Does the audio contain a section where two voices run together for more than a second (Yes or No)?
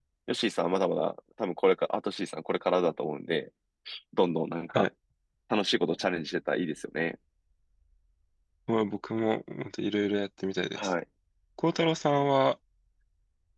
No